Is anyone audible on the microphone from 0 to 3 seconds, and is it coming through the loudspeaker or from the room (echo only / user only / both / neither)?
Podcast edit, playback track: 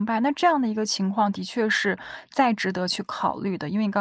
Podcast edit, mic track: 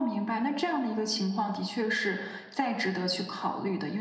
echo only